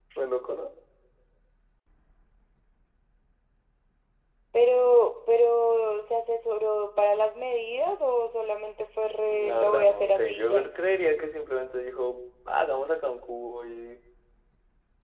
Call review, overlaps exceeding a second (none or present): present